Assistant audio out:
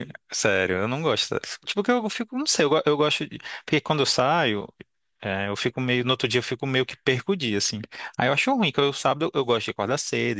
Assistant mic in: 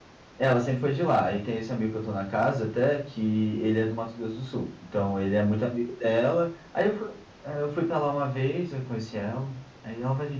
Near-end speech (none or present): present